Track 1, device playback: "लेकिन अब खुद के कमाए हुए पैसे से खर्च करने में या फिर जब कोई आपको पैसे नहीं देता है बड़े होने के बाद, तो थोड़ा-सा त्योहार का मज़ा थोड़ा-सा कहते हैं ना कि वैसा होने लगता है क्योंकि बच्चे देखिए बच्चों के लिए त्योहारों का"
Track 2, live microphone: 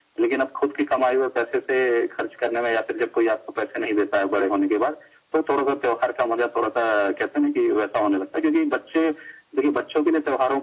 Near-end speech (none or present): none